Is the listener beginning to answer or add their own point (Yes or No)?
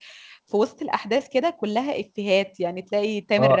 Yes